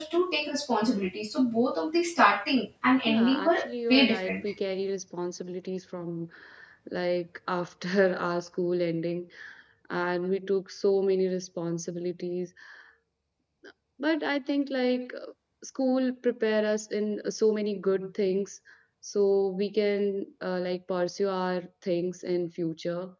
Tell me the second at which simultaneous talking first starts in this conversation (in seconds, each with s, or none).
3.1 s